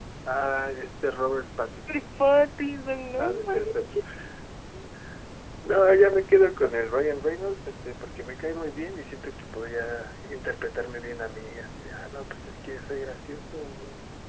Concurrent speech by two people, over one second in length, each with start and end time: none

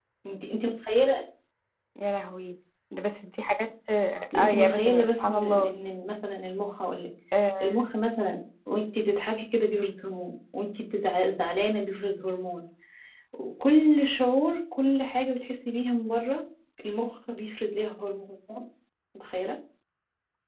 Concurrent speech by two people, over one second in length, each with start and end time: 4.3-5.7

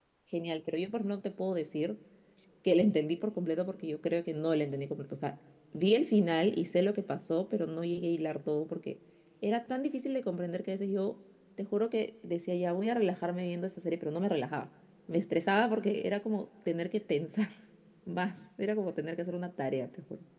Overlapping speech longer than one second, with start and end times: none

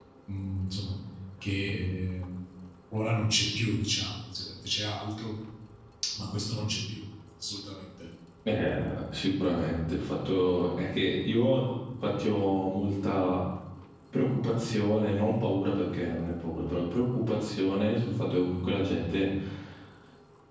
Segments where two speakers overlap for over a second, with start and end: none

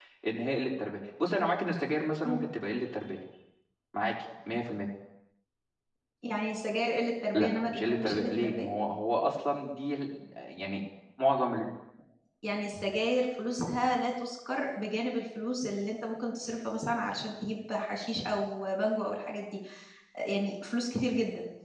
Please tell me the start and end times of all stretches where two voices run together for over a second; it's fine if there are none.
7.3-8.7

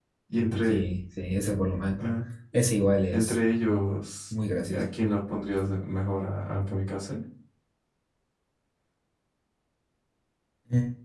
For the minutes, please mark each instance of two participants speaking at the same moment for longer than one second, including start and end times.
none

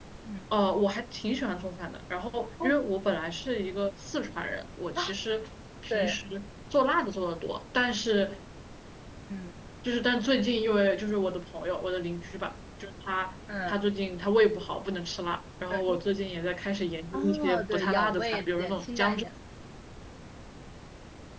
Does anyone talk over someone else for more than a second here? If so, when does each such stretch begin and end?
17.1-19.2

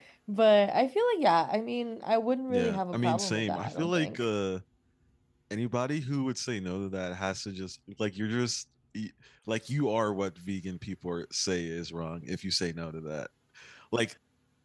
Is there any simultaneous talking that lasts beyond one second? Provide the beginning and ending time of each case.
2.5-4.2

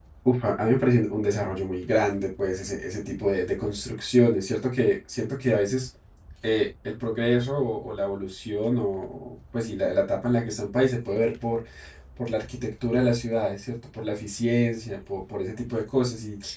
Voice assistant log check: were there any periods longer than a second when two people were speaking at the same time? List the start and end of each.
none

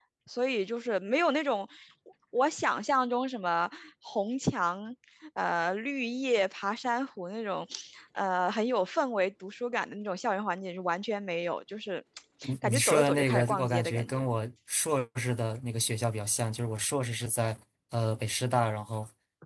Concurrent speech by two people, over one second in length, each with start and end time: 12.6-14.3

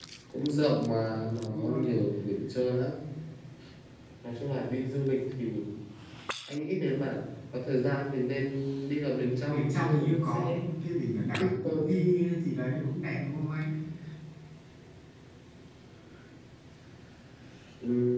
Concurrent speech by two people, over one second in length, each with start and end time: 9.4-10.7

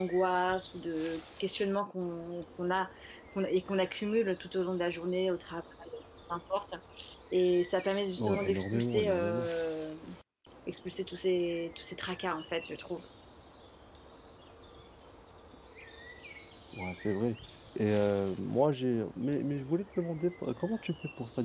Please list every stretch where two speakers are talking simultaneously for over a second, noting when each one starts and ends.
8.2-9.5

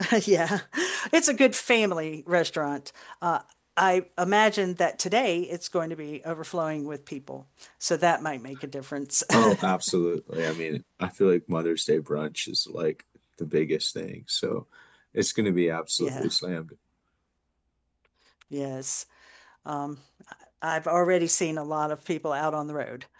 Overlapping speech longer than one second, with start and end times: none

